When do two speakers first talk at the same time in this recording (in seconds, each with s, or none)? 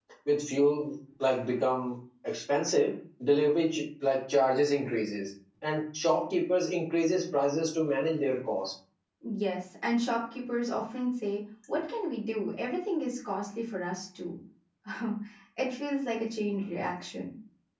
none